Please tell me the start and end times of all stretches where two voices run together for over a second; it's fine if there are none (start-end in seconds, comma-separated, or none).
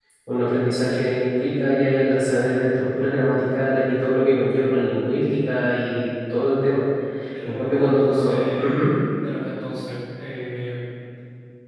7.4-8.8